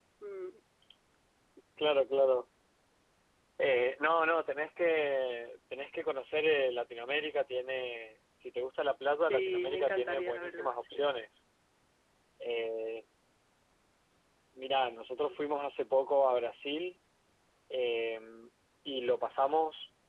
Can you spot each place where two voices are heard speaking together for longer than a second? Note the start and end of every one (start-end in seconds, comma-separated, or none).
9.3-11.1